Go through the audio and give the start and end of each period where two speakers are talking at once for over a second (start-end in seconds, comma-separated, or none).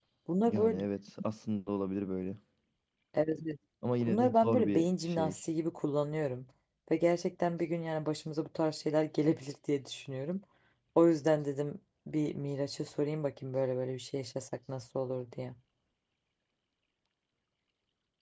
4.1-5.3